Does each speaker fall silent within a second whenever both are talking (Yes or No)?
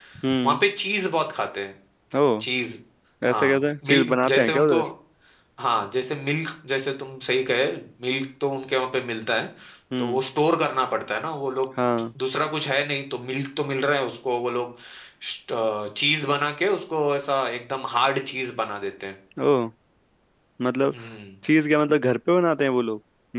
No